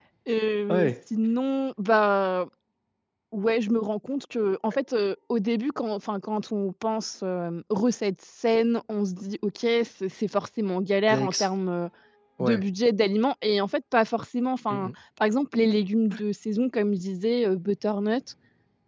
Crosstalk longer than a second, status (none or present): none